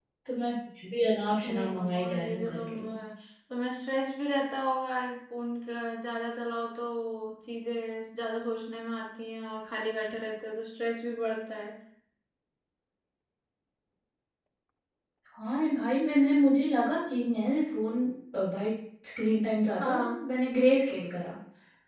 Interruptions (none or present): present